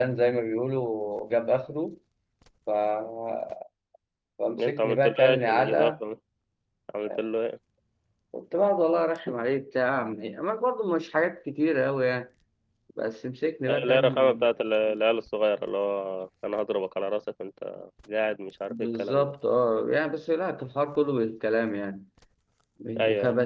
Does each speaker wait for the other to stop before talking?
No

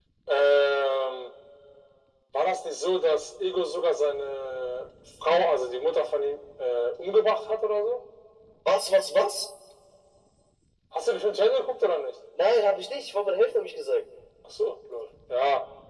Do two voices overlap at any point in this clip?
No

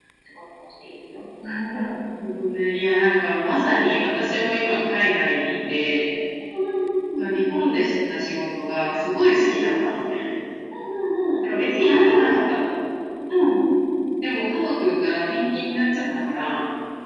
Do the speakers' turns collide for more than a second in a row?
No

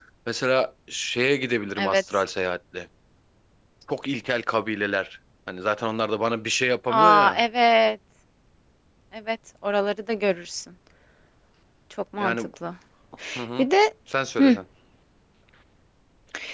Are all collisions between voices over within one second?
Yes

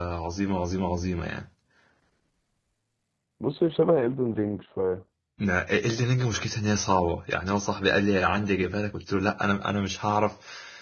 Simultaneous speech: No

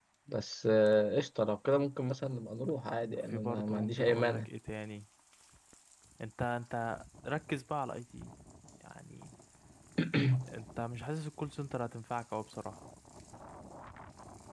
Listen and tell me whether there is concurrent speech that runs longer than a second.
Yes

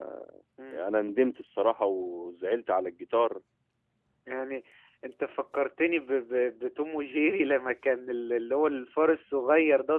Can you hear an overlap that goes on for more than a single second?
No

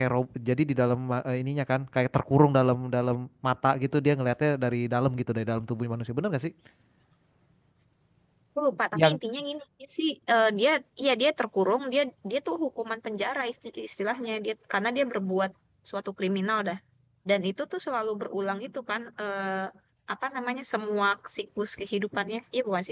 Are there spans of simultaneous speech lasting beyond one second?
No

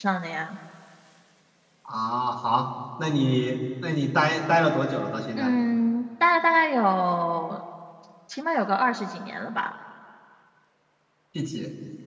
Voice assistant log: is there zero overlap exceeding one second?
Yes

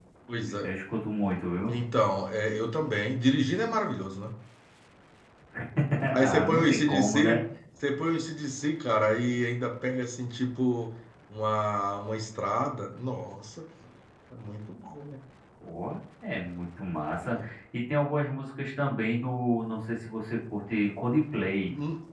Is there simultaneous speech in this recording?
Yes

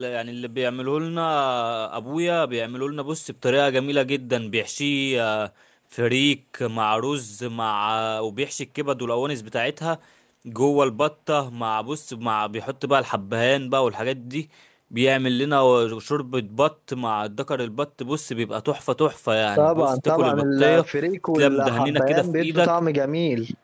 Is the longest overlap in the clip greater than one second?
Yes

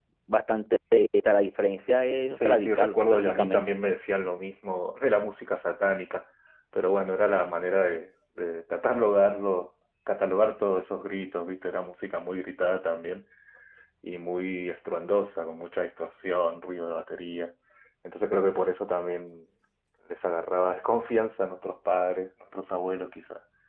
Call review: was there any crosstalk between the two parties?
Yes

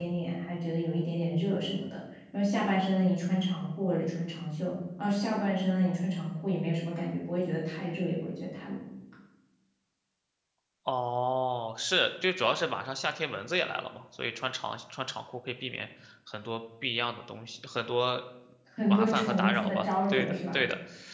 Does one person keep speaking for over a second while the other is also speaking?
Yes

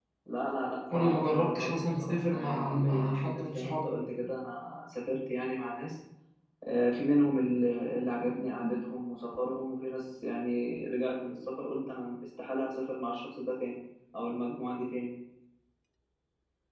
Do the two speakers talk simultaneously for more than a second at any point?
Yes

